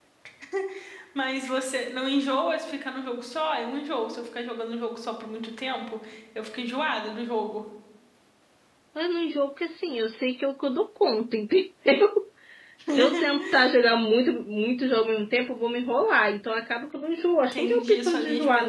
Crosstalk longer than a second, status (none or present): present